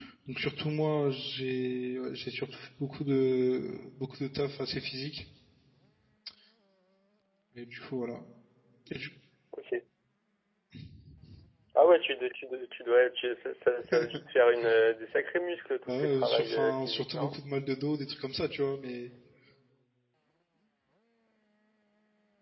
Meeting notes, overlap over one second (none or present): present